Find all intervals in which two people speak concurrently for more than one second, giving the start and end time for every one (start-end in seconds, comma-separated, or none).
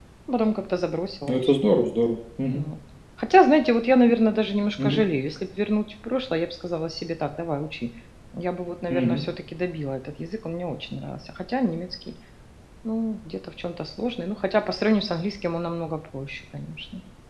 none